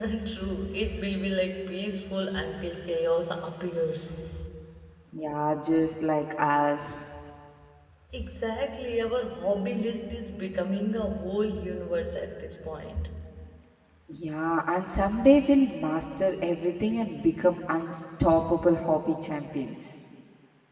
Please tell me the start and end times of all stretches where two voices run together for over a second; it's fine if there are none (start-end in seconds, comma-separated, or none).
none